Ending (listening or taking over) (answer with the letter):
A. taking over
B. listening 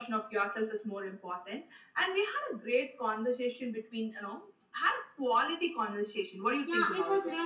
A